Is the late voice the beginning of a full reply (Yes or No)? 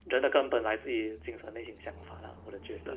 Yes